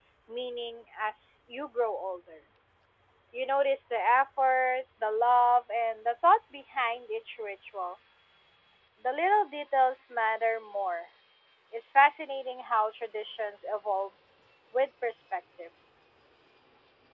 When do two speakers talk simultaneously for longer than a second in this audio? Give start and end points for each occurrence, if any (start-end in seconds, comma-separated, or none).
none